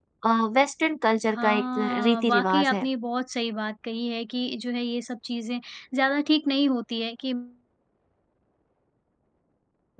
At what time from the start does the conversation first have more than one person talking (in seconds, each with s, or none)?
1.3 s